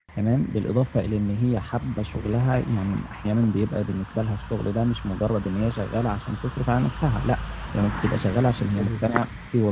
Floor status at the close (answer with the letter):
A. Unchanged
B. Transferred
A